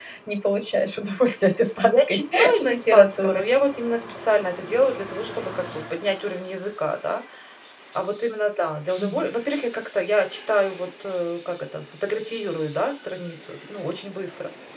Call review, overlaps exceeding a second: present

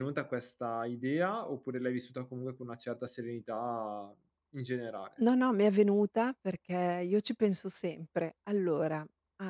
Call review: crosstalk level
none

